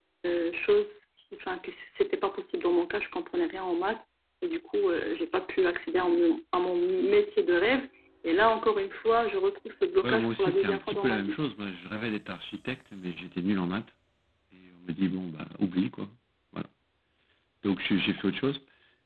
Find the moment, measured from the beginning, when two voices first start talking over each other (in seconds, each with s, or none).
10.0 s